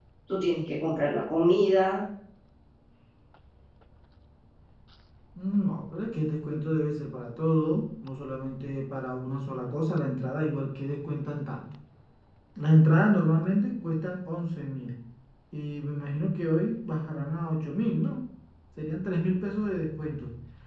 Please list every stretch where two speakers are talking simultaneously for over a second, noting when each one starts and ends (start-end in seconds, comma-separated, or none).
none